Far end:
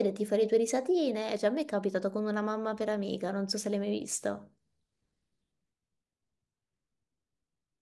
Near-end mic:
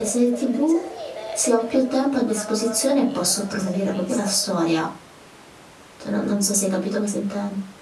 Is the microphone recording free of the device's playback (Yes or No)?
No